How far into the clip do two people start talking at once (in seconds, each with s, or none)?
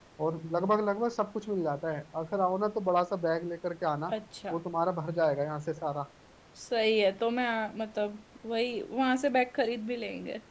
none